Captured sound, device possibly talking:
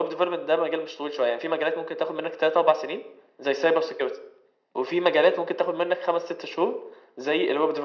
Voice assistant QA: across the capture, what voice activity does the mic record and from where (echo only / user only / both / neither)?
echo only